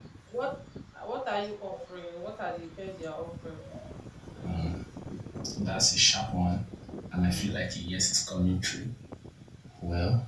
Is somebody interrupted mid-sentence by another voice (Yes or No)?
No